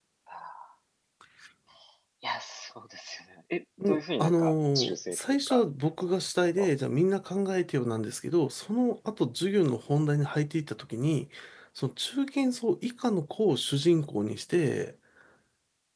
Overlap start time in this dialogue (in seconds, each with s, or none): 3.8 s